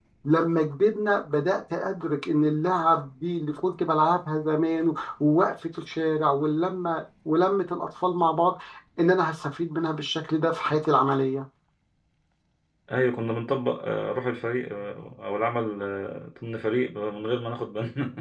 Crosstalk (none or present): none